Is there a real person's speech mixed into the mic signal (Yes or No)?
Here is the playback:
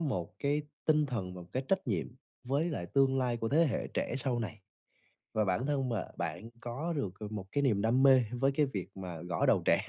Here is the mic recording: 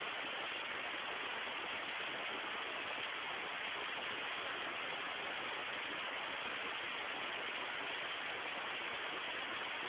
No